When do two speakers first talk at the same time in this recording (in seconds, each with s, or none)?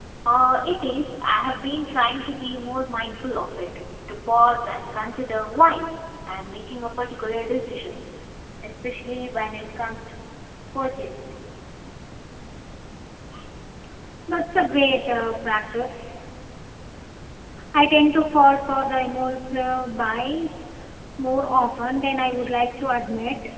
none